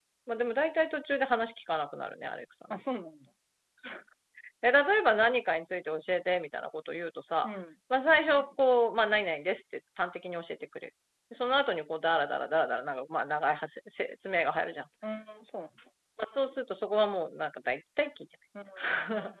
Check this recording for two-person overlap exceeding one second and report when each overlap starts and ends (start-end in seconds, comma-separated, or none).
none